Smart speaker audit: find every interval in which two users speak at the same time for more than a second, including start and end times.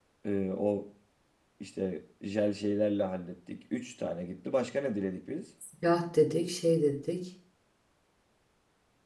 none

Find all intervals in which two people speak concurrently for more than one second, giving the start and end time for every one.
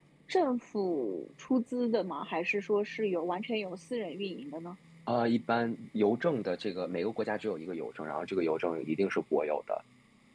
none

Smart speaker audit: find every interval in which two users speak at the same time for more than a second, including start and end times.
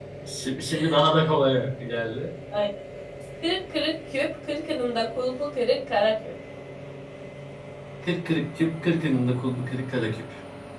none

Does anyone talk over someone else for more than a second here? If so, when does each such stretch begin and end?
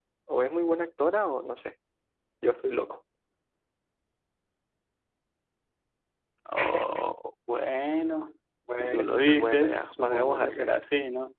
8.7-10.8

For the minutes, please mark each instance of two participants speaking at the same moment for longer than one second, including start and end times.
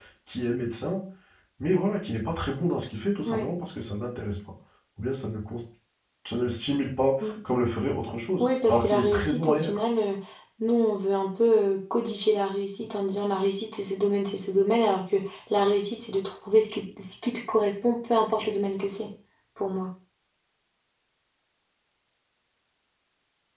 8.4-9.8

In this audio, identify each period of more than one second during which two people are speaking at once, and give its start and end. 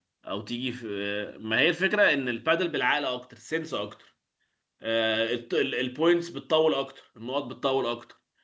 none

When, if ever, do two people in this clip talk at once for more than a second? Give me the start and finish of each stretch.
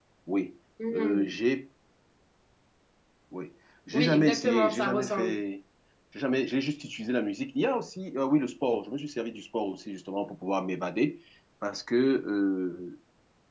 3.9-5.4

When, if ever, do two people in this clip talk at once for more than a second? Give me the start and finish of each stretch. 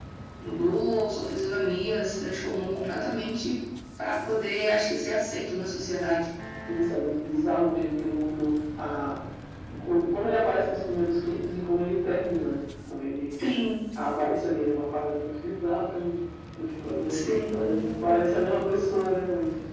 17.1-19.1

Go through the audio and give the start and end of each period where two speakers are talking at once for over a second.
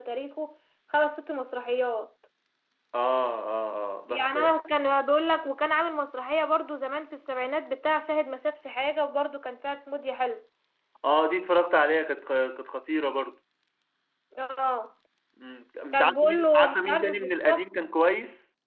15.9-17.6

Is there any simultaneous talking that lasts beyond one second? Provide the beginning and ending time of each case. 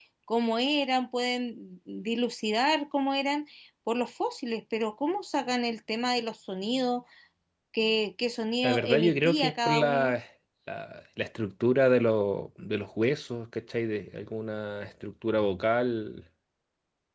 8.6-10.1

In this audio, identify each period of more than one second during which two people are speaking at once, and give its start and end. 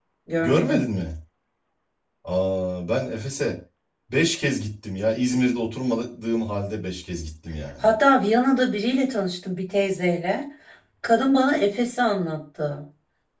none

